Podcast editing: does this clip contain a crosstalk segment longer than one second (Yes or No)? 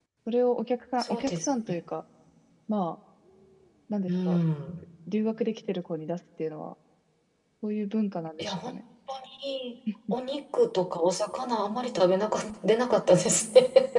No